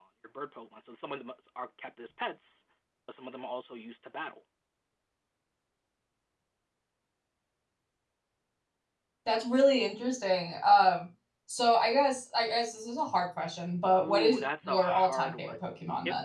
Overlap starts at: 14 s

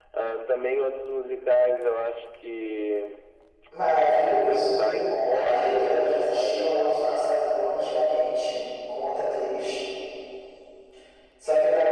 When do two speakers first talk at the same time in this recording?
4 s

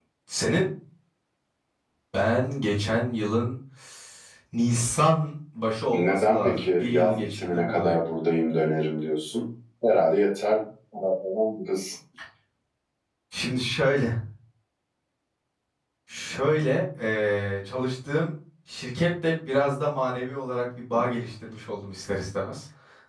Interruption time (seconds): 6 s

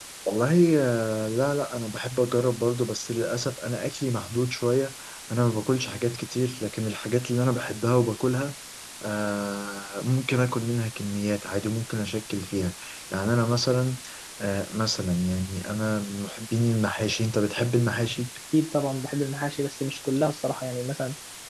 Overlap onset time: none

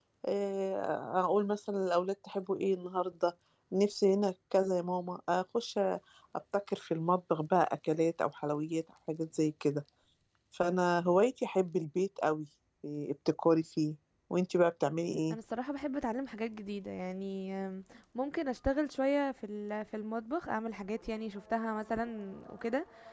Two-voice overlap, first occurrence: none

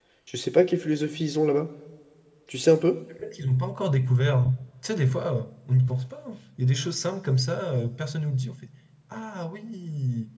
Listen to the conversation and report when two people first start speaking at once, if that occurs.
none

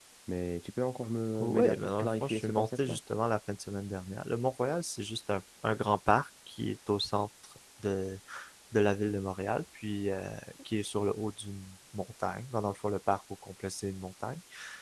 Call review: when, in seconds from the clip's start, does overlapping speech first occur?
1 s

